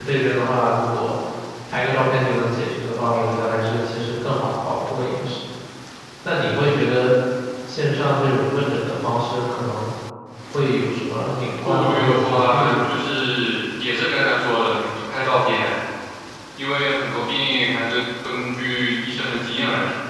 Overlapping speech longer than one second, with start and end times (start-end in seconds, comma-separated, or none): 11.6-12.9